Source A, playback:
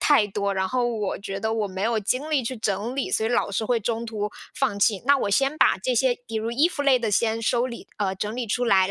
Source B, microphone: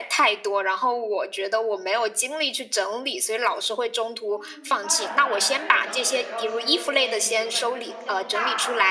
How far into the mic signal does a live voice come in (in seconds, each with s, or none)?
4.3 s